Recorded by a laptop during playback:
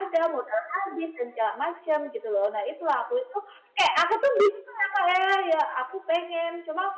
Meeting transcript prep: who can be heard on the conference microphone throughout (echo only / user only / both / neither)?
user only